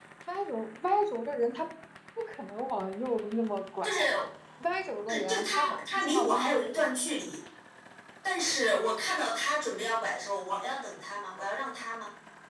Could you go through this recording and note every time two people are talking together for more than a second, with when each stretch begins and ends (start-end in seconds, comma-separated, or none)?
5.1-6.5